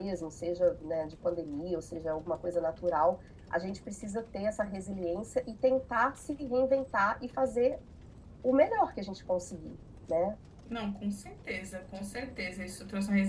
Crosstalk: none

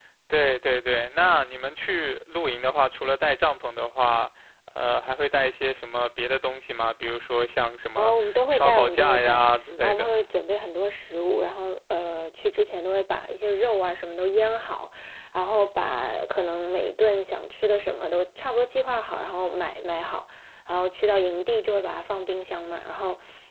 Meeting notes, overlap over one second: present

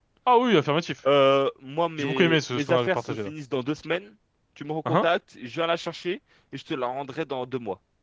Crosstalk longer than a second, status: present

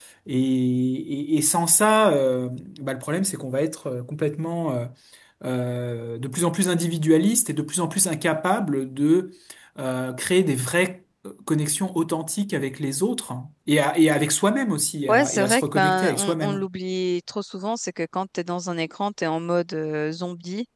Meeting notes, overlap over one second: present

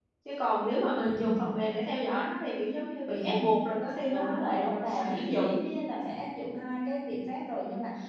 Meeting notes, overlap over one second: present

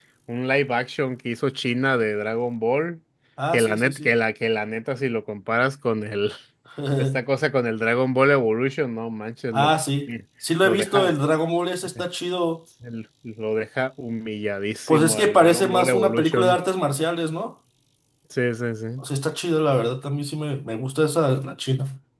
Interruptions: present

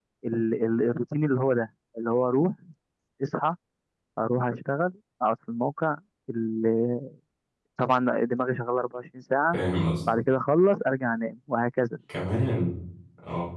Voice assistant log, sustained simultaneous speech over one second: none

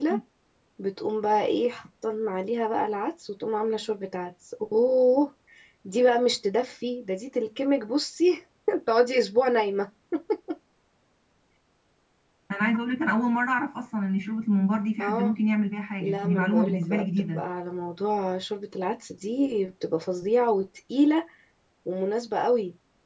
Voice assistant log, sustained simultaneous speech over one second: present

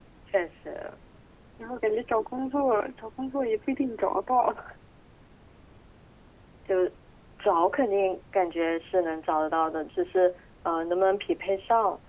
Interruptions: none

